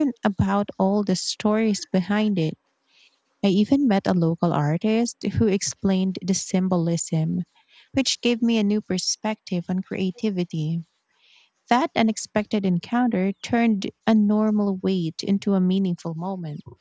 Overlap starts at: none

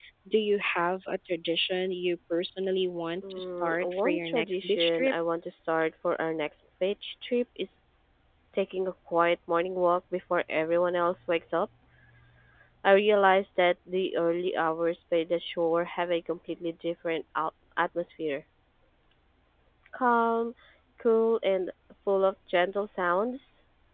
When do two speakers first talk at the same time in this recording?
3.2 s

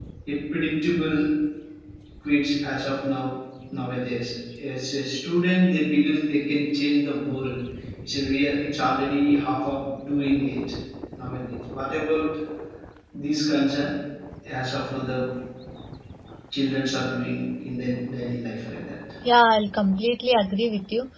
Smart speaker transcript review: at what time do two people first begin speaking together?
none

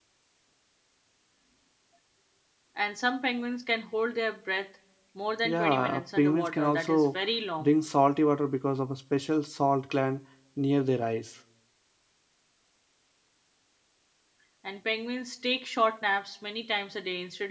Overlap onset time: 5.4 s

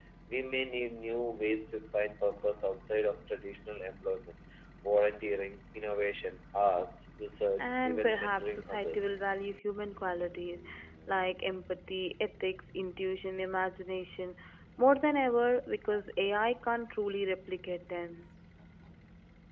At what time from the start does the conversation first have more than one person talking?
7.6 s

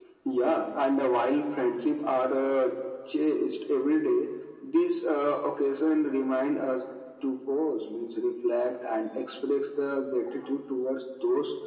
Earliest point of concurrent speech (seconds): none

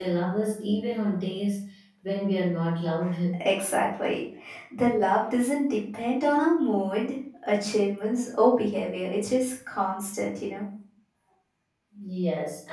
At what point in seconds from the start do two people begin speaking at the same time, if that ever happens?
none

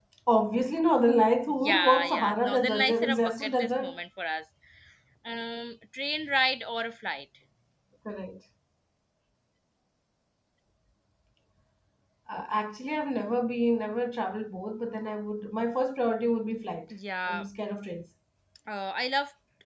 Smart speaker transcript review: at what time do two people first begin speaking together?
1.4 s

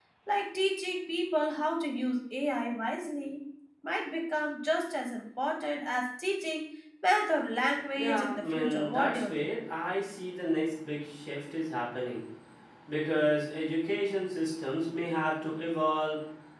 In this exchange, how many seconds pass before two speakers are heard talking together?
8.0 s

